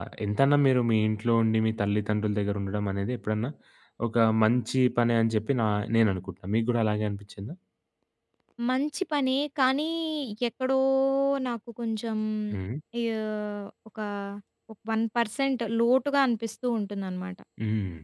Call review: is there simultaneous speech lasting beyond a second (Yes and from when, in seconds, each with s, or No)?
No